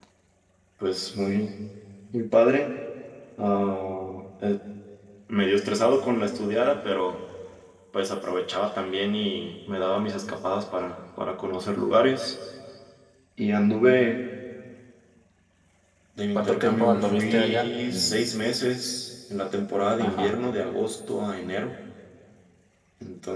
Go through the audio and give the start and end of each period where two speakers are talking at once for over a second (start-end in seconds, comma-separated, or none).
16.4-18.2